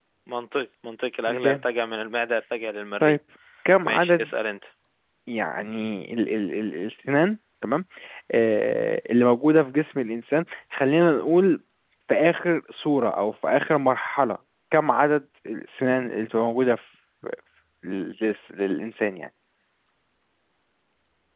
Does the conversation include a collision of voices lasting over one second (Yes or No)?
No